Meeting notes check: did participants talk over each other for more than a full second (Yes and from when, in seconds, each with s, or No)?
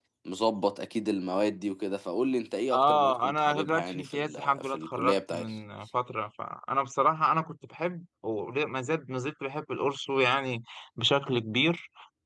Yes, from 2.7 s